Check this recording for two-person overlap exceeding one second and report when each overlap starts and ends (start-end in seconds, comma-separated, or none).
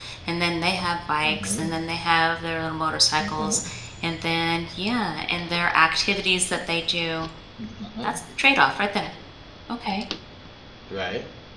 none